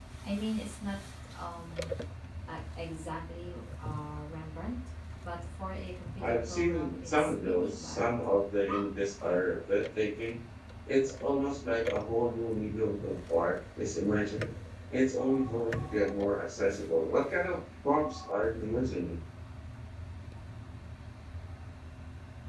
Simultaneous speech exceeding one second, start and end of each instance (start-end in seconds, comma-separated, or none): 6.2-8.2